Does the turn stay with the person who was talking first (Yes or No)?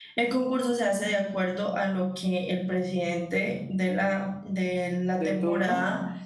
Yes